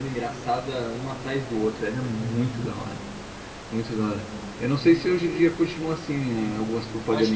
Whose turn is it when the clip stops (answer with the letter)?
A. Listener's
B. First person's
A